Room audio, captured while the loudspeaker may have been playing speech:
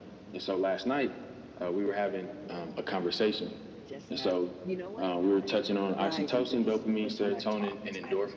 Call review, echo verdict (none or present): present